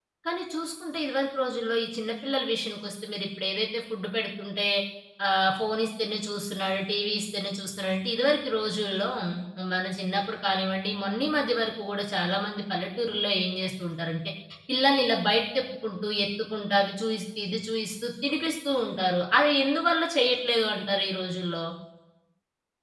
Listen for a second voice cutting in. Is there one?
No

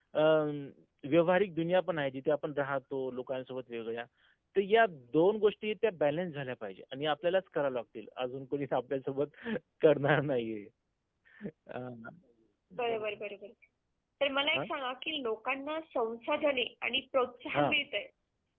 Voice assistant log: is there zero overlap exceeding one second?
Yes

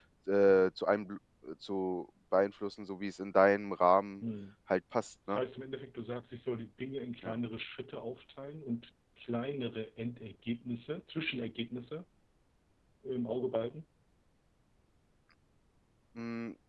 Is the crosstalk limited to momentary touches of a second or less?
Yes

